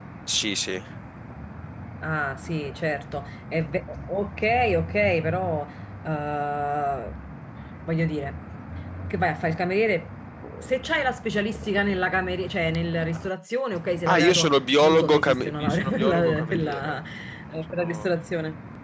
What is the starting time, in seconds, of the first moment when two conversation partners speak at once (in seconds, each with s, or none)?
14.1 s